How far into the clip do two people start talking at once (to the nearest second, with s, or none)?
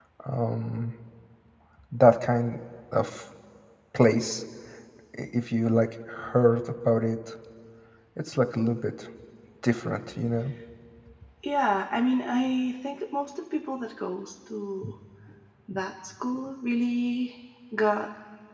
none